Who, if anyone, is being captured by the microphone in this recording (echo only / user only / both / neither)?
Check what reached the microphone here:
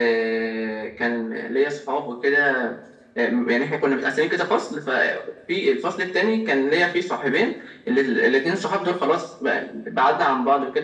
echo only